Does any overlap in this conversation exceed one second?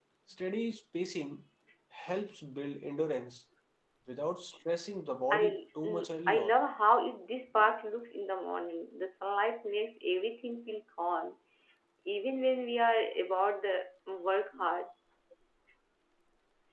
Yes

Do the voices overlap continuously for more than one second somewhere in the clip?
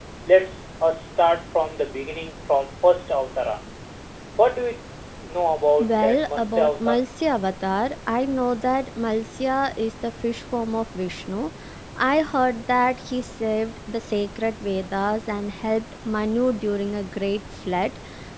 Yes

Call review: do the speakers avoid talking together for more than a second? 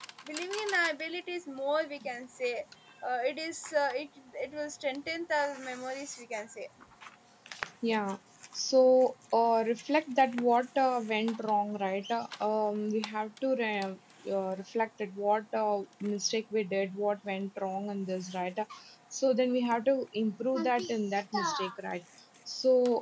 Yes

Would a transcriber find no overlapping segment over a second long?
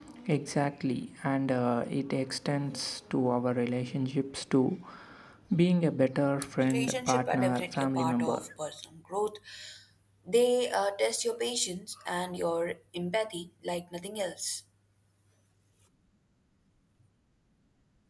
No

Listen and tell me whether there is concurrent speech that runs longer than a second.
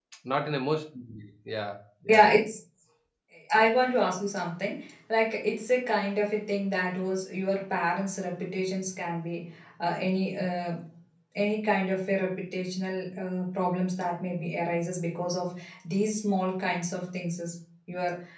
No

